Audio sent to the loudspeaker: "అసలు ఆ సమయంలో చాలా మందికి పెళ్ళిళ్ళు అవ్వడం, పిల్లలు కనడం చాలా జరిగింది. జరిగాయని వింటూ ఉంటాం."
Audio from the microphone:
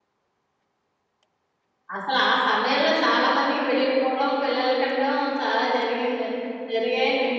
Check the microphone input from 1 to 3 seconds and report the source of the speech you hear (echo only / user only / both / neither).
echo only